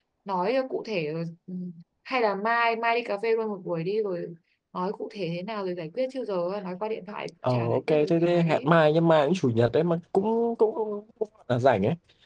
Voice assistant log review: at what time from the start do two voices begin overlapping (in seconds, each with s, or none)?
7.4 s